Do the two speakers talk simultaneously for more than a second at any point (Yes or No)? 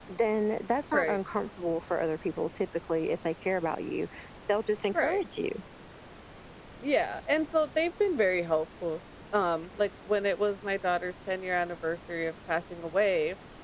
No